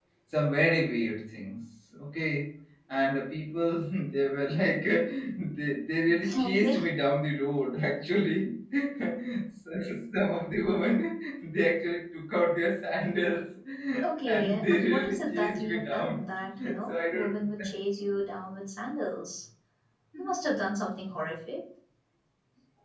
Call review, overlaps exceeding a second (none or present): present